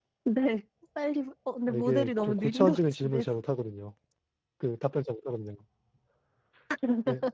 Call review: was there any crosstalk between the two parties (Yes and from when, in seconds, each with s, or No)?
Yes, from 1.7 s